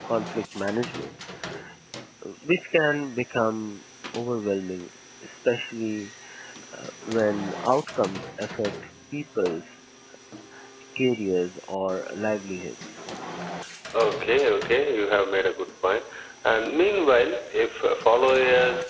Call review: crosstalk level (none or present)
none